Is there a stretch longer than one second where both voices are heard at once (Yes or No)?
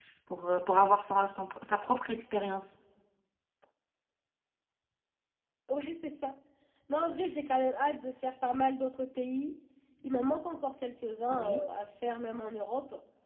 No